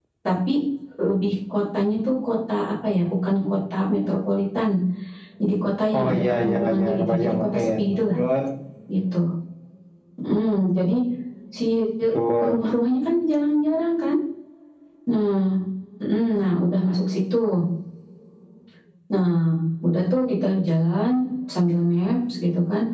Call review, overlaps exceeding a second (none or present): present